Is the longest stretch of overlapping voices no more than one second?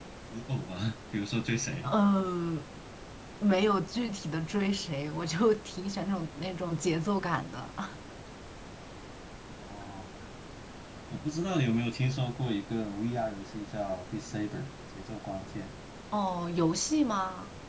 Yes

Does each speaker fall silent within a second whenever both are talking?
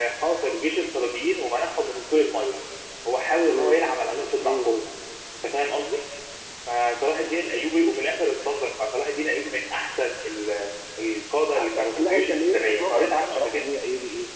No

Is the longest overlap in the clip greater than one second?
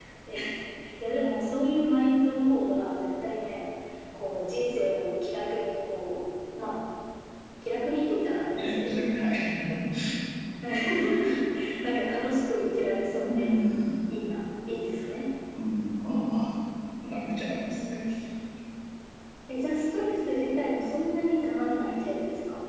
No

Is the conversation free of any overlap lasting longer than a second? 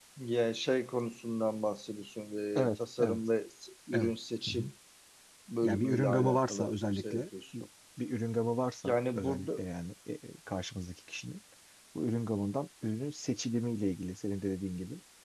No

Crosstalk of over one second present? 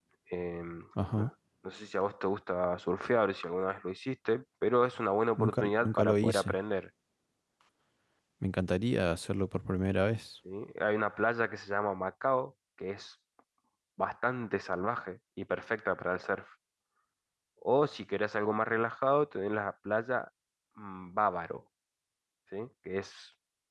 Yes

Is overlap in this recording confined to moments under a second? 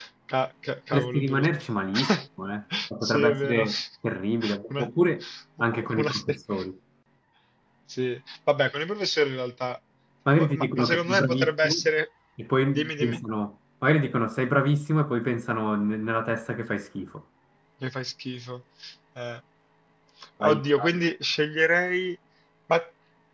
No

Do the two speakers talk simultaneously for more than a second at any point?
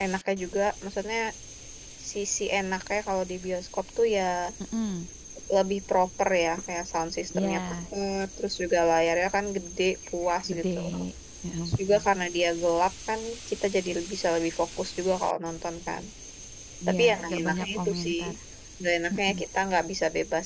Yes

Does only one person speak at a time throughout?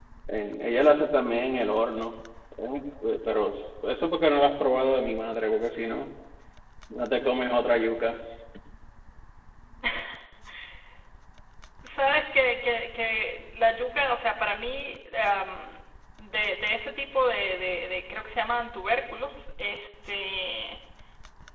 Yes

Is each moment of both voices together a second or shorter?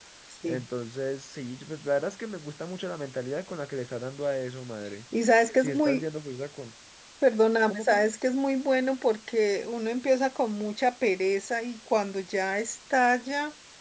Yes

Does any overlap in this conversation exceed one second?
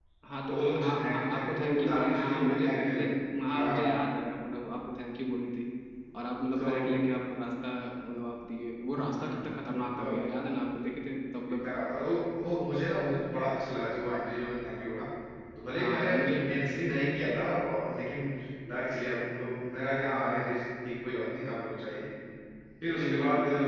Yes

